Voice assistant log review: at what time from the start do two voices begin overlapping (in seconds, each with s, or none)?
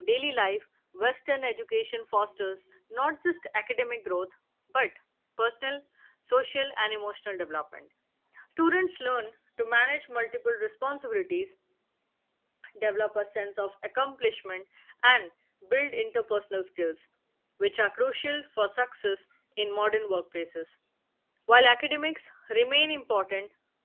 none